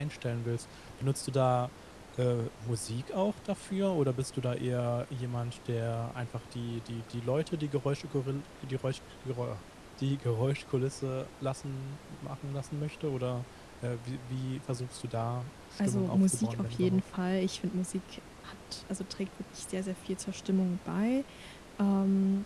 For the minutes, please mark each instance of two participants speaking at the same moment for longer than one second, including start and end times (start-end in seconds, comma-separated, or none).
15.8-17.0